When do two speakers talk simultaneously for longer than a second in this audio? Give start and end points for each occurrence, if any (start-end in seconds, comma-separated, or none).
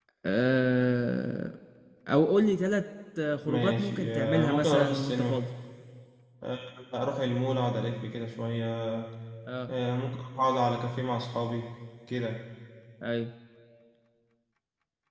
3.5-5.5